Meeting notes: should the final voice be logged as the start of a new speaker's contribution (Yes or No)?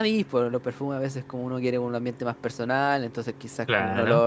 No